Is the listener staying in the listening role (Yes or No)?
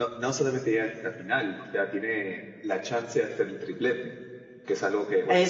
Yes